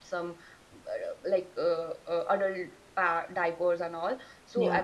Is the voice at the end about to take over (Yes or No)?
No